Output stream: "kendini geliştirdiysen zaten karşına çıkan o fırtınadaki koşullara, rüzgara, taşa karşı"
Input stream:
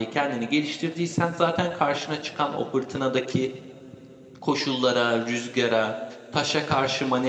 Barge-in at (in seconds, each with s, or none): none